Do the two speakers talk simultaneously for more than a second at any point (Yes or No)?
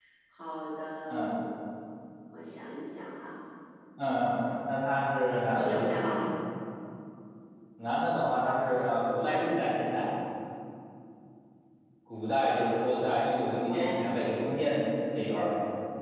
No